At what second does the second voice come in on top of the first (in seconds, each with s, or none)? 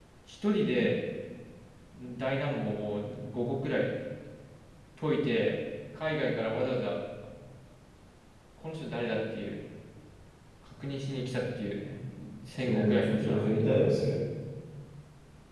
12.6 s